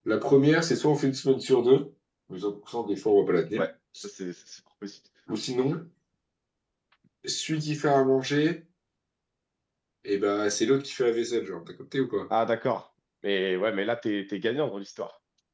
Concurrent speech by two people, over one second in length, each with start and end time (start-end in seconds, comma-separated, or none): none